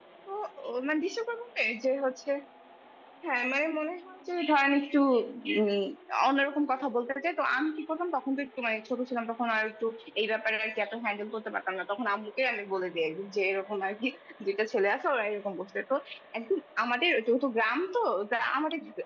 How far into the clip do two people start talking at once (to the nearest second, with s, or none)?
none